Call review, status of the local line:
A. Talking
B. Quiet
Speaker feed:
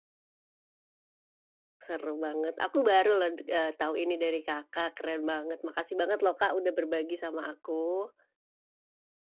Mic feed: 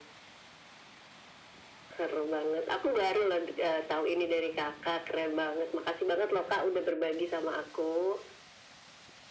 B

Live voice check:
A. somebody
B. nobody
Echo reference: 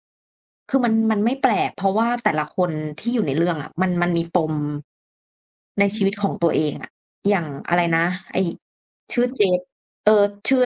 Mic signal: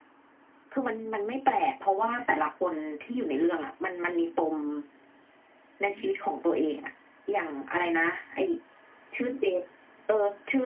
B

